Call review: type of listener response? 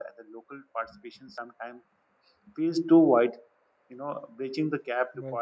listening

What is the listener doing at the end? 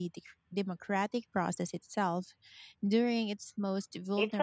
taking over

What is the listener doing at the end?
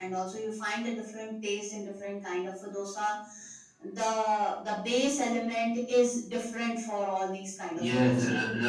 taking over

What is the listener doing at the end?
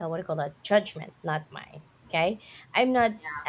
listening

